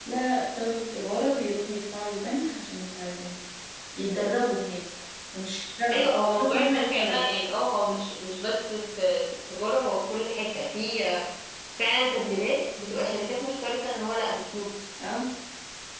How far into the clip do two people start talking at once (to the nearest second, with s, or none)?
6 s